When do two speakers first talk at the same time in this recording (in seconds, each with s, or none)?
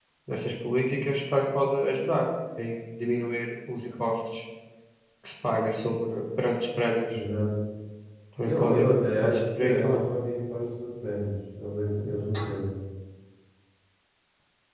8.4 s